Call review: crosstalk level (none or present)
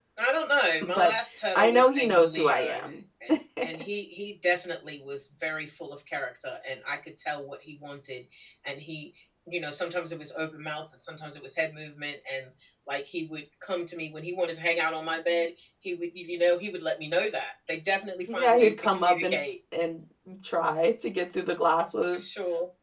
present